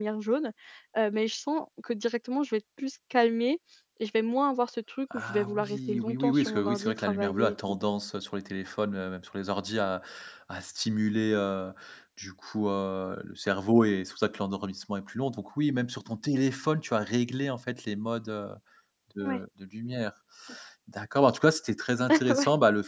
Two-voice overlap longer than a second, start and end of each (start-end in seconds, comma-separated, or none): 5.1-7.8